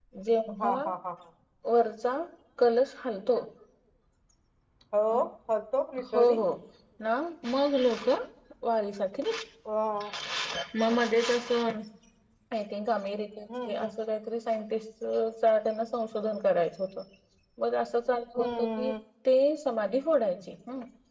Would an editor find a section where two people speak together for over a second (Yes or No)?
No